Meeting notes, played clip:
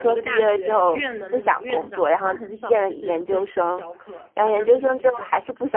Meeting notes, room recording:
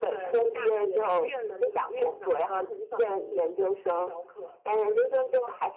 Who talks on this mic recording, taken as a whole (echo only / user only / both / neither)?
echo only